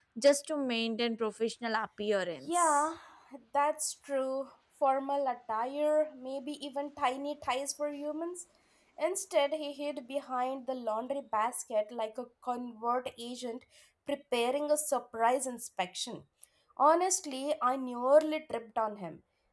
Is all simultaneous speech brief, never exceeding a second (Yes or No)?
Yes